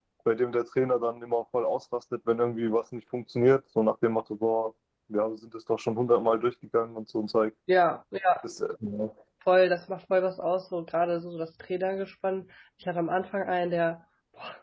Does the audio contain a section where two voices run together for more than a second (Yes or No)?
No